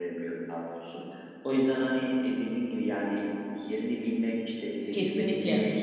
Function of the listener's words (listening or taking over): listening